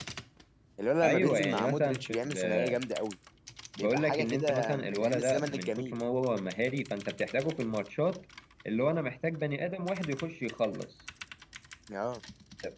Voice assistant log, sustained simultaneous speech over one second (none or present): present